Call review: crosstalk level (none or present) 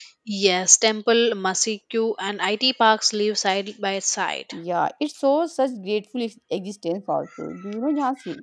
none